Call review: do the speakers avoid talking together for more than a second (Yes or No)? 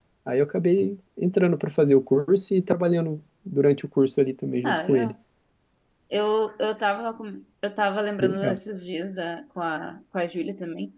Yes